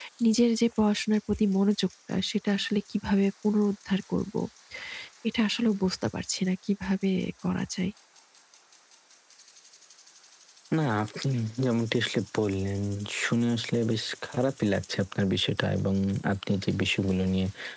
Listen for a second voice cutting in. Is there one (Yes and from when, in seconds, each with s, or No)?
No